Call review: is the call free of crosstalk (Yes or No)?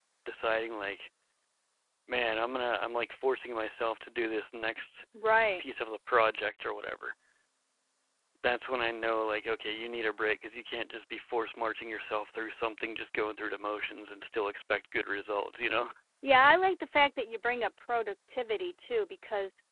Yes